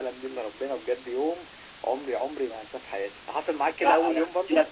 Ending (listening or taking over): taking over